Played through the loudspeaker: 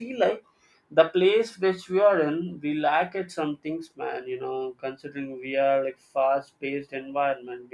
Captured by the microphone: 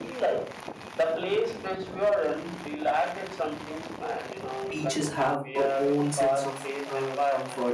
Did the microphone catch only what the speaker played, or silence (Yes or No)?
No